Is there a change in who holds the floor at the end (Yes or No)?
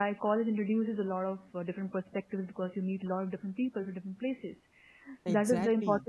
No